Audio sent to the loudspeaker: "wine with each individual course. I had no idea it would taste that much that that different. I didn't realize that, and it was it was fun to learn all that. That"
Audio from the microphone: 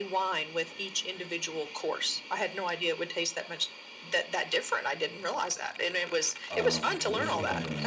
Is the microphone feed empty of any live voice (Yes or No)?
No